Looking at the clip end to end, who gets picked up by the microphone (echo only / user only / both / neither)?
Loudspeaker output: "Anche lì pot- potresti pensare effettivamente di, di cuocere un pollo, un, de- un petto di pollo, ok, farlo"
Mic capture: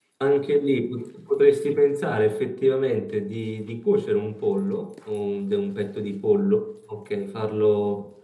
echo only